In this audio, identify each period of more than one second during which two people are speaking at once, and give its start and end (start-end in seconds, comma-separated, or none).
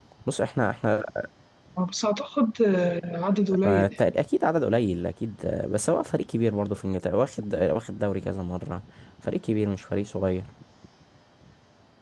none